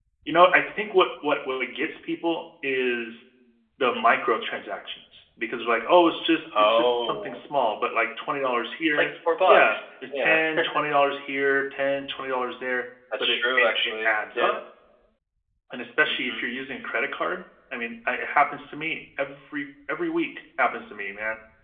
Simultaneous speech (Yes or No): Yes